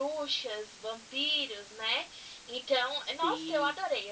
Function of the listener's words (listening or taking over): listening